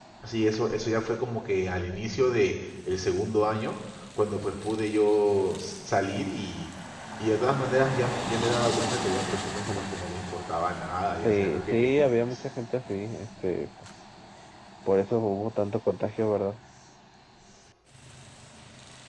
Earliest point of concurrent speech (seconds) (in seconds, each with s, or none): 11.2 s